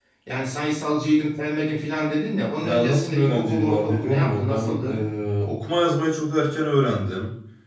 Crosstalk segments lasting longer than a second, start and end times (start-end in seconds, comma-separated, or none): 2.6-5.0